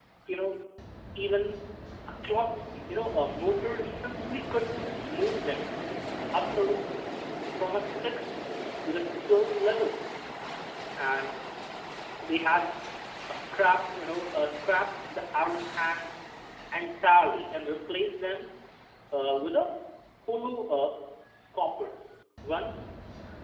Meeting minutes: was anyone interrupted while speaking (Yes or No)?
No